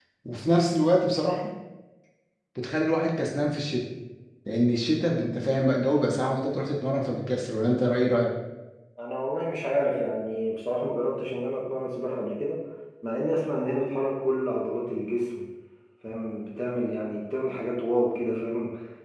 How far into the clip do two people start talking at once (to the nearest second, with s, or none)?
none